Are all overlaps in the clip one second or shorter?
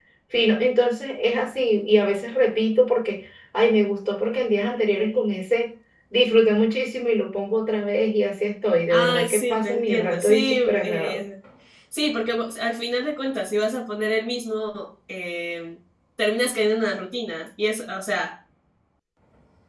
No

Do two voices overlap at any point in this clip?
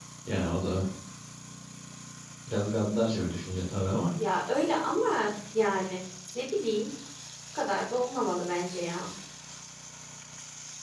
No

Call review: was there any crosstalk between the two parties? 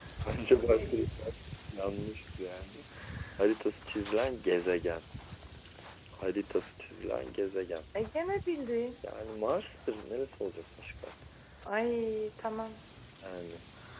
No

